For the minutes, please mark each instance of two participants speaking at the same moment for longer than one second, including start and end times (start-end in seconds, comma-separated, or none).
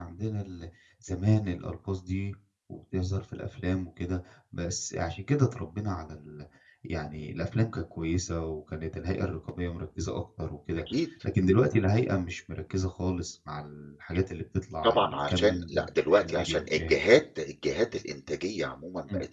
14.8-17.0